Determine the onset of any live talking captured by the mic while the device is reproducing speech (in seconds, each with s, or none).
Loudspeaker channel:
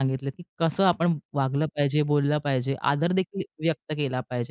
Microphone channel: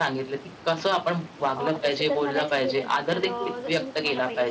1.6 s